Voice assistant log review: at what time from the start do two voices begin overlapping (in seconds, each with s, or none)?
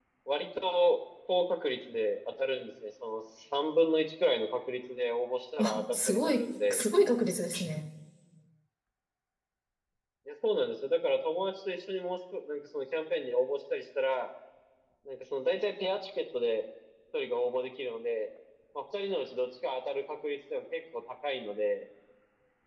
5.6 s